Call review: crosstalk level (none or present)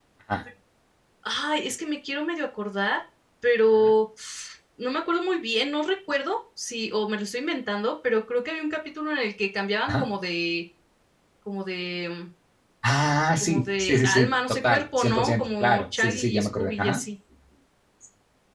present